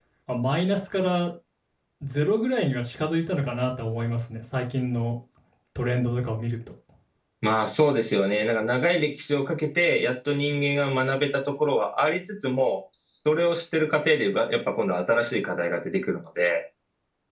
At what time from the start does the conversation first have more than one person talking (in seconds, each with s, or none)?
none